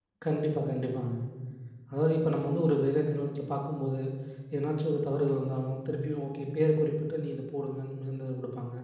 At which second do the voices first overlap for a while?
none

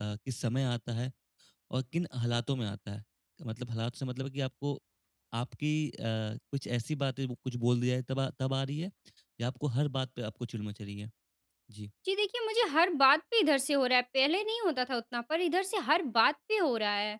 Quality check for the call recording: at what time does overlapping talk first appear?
none

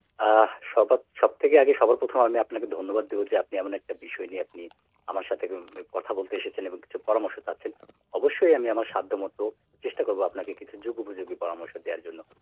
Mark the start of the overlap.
none

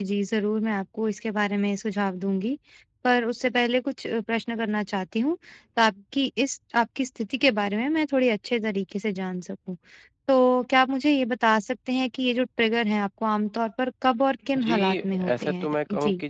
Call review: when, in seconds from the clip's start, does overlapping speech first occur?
14.6 s

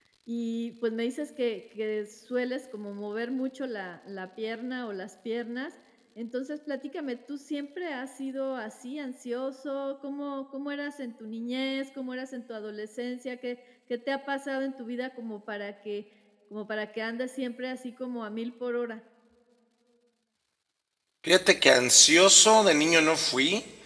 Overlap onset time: none

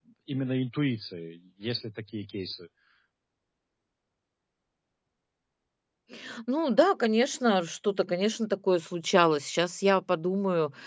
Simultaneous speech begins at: none

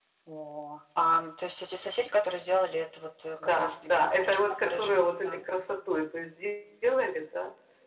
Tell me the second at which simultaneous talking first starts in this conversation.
3.4 s

